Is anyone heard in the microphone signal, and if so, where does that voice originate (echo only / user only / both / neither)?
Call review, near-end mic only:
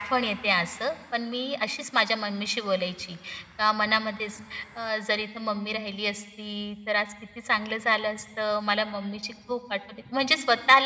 echo only